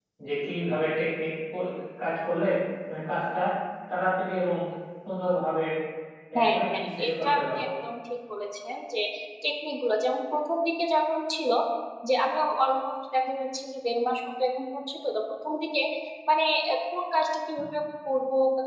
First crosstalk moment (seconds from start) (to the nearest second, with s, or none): 6 s